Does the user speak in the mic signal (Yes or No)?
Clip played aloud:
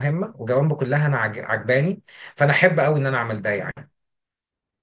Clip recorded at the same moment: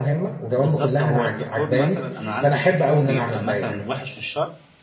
Yes